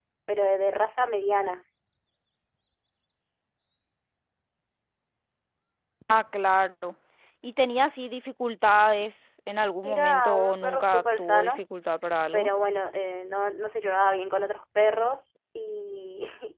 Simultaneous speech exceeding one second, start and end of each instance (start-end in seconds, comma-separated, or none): 9.8-11.5